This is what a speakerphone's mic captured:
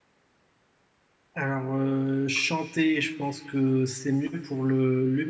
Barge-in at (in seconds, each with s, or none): 1.3 s